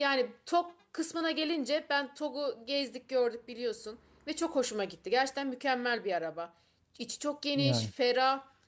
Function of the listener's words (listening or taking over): listening